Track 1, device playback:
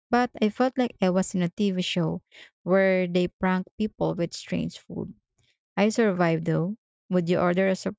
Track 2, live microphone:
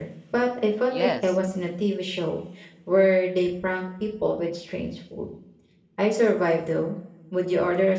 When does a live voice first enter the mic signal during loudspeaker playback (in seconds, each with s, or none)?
0.8 s